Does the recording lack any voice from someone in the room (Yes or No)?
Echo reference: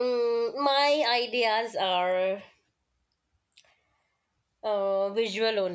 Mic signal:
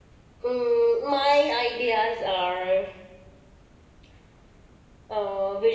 Yes